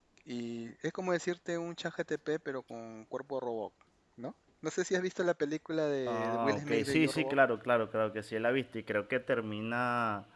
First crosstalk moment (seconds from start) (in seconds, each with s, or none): 6.1 s